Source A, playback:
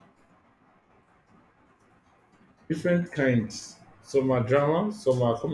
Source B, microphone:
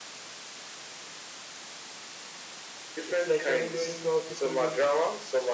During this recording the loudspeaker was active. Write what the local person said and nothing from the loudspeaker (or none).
It's like a window into how people live.